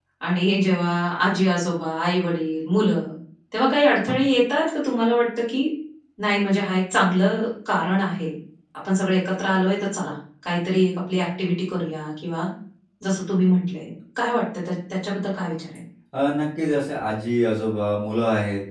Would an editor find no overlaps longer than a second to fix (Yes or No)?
Yes